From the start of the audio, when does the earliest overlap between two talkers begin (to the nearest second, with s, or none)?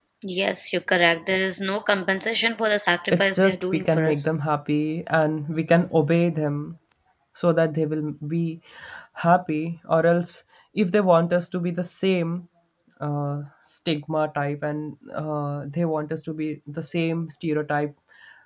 3 s